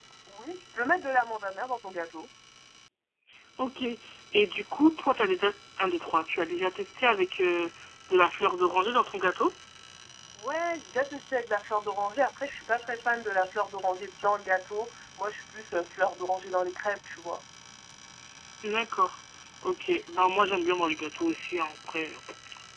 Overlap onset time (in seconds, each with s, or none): none